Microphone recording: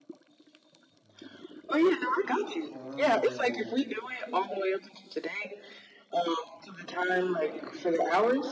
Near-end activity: present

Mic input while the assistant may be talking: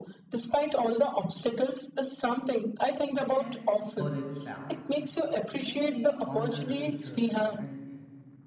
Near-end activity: present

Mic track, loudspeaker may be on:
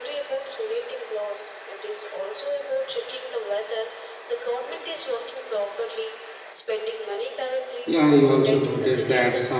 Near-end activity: present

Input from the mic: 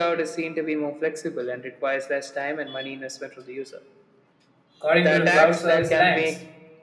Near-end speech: present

